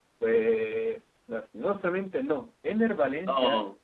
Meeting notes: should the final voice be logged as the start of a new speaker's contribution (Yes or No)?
No